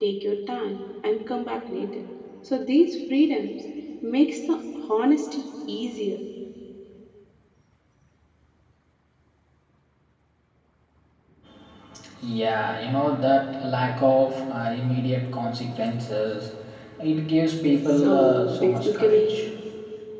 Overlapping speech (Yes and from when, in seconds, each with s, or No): Yes, from 18.0 s